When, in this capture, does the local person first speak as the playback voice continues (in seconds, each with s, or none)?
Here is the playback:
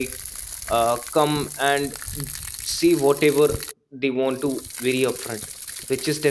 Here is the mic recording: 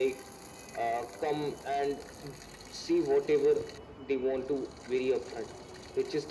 none